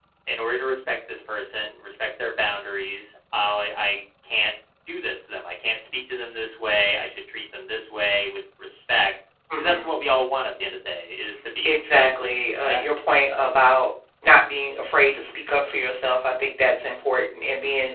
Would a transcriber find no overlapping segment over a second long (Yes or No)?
No